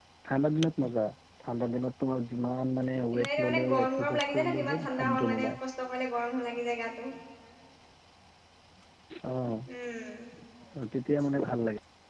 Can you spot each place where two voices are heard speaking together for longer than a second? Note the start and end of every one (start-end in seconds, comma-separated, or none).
3.1-5.5